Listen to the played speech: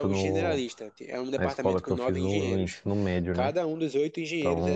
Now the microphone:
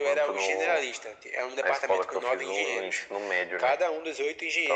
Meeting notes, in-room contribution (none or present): none